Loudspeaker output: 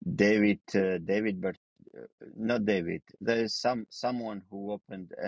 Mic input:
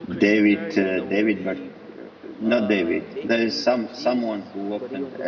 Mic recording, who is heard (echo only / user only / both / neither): both